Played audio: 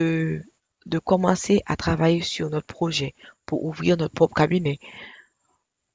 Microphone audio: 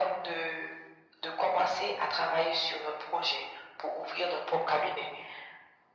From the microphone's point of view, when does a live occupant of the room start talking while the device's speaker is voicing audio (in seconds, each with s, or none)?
none